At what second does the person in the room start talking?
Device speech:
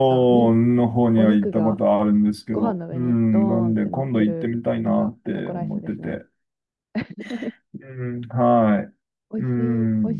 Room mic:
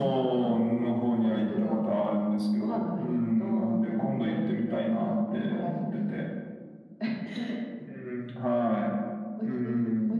none

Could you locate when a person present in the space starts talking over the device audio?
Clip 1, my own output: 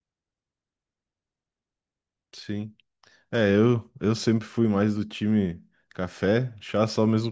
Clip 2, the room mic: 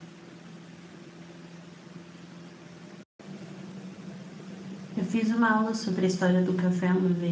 4.9 s

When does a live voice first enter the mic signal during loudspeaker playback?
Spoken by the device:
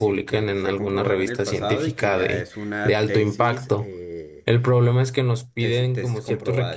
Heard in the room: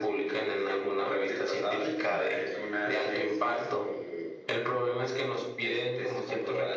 none

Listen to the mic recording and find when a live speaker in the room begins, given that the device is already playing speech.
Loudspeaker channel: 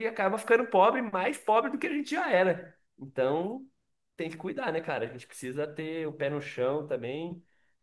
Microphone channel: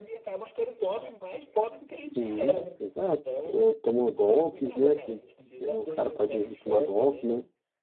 2.0 s

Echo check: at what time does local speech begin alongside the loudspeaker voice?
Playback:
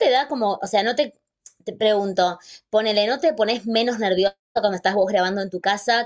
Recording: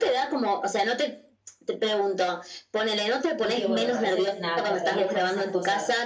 3.4 s

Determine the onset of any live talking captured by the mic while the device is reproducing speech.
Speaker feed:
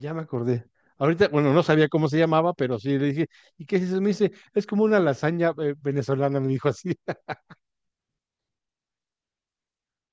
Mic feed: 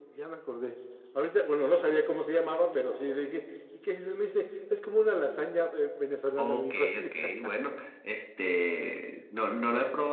6.4 s

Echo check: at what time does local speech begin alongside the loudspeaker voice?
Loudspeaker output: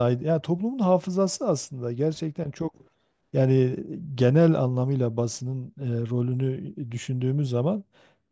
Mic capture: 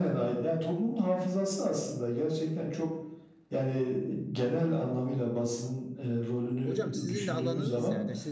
6.6 s

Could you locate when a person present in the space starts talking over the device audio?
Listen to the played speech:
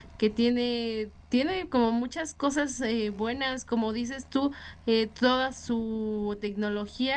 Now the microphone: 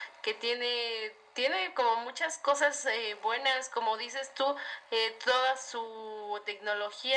none

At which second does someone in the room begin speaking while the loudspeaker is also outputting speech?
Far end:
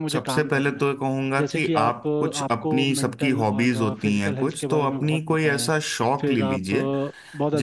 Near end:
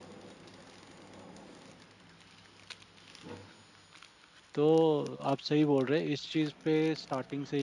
4.5 s

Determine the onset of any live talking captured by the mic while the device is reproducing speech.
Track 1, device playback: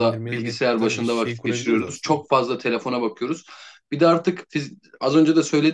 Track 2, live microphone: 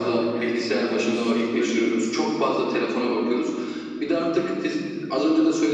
none

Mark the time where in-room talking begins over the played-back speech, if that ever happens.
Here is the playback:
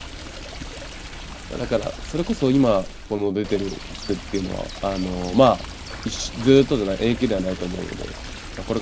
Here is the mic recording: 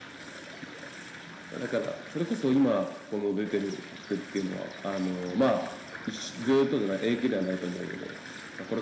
none

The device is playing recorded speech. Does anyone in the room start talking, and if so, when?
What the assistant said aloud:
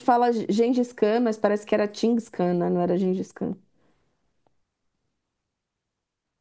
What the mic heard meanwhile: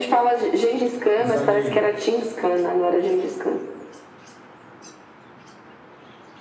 1.1 s

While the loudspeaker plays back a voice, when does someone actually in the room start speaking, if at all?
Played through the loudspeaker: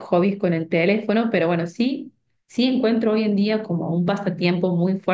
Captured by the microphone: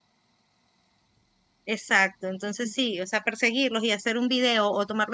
1.6 s

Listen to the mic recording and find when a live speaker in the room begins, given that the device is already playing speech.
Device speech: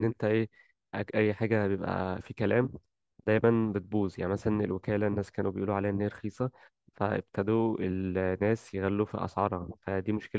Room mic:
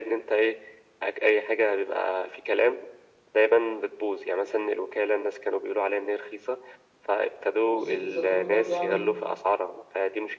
7.7 s

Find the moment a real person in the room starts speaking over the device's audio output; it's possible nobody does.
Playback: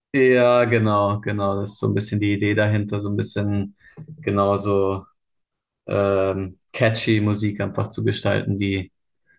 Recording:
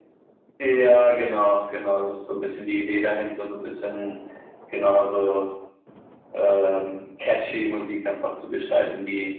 none

